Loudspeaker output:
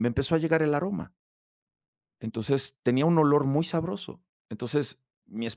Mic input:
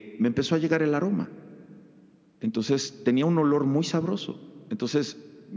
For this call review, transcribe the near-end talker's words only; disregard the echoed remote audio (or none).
none